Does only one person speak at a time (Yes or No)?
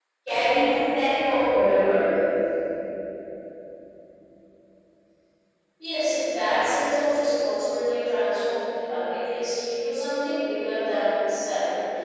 Yes